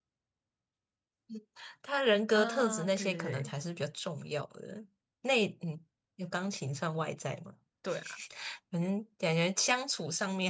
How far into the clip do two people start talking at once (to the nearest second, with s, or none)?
2 s